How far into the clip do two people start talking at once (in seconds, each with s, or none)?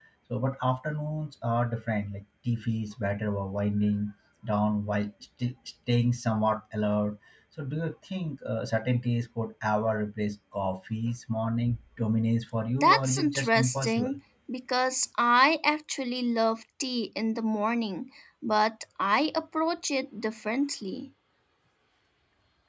12.8 s